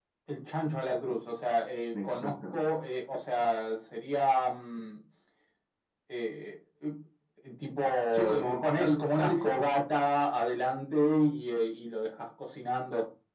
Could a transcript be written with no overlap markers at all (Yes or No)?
No